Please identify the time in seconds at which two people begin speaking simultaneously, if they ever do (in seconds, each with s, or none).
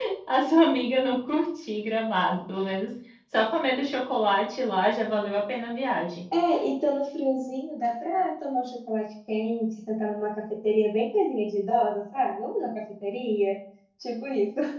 none